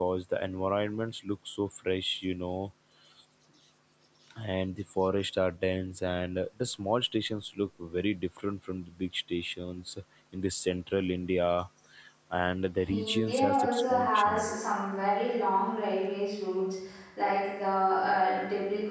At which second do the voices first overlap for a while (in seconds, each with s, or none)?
12.9 s